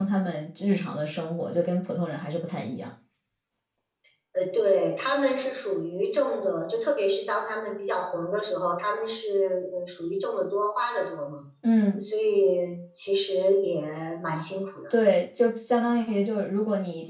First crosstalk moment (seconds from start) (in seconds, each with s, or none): none